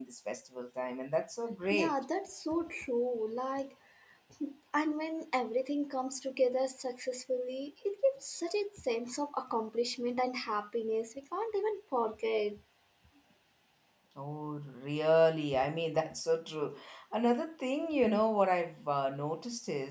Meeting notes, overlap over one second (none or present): none